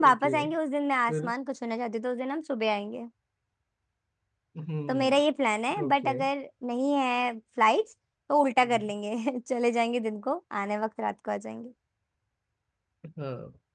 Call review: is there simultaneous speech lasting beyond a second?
No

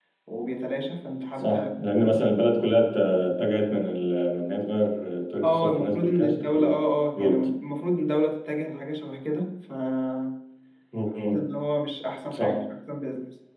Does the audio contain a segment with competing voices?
Yes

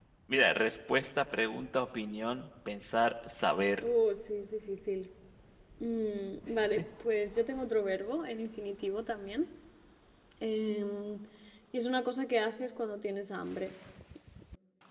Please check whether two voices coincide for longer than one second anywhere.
No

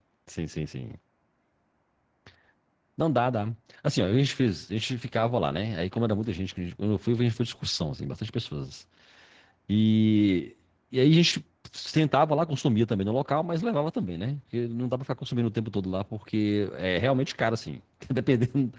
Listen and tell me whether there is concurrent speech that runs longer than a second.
No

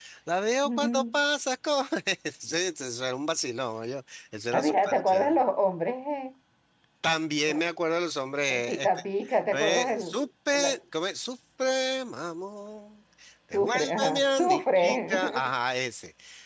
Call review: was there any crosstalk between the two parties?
Yes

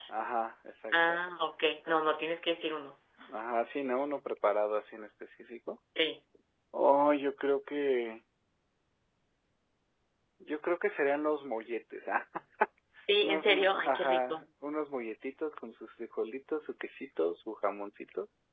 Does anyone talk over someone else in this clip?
Yes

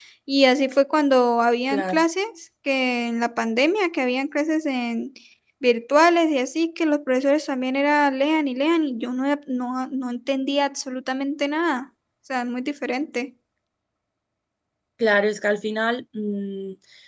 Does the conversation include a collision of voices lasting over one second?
No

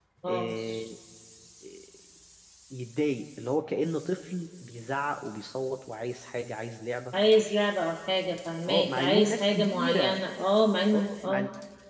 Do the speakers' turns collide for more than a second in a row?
Yes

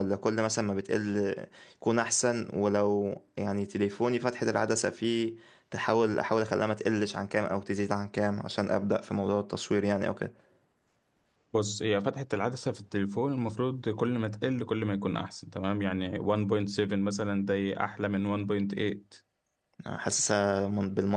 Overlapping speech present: No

